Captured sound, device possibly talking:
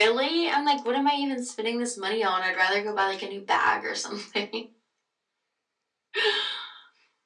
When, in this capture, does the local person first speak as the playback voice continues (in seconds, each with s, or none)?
none